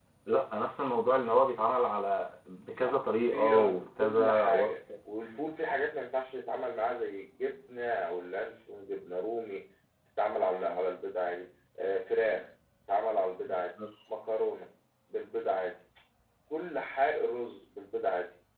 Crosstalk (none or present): present